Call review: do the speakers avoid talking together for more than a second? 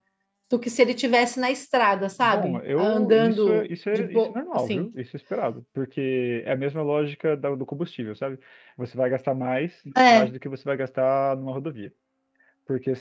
No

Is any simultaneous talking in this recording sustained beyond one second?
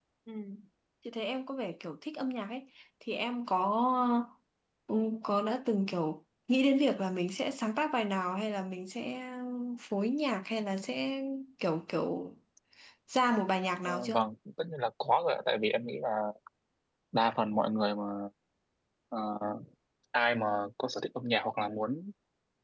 No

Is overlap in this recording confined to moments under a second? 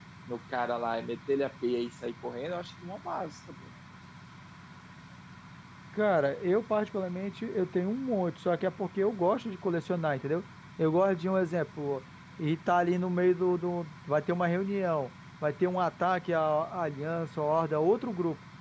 Yes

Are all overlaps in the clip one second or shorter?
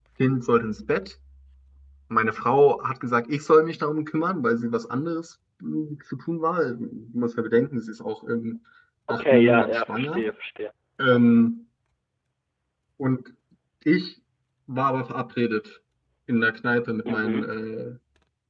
No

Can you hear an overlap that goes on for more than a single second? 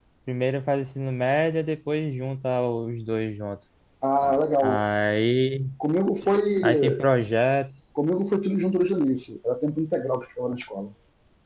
No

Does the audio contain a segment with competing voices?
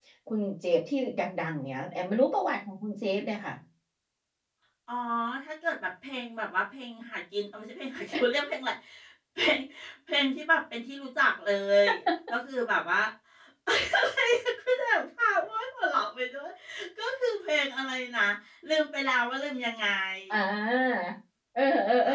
No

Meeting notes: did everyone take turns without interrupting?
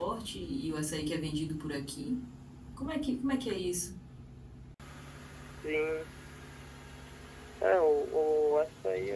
Yes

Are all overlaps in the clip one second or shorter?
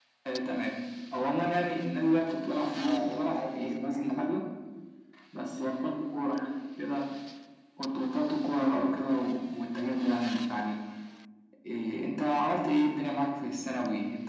No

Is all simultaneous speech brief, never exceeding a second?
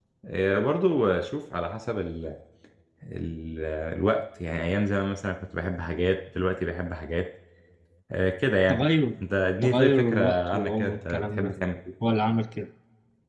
No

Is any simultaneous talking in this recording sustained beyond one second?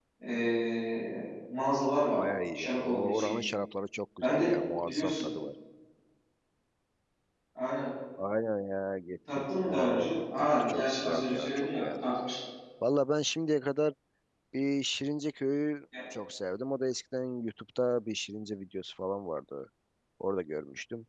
Yes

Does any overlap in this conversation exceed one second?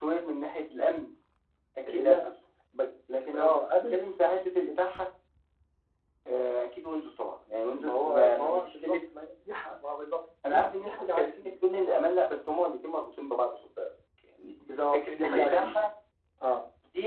Yes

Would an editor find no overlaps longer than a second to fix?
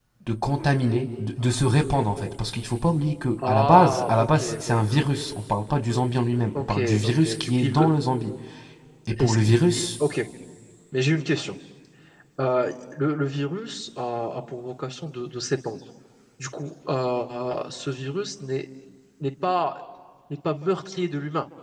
No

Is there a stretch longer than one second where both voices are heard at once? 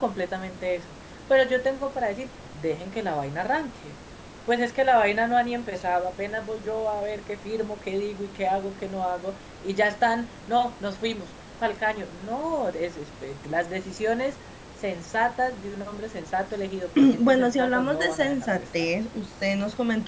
Yes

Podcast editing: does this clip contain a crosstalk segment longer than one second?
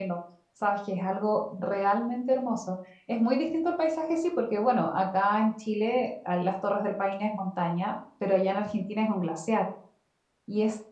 No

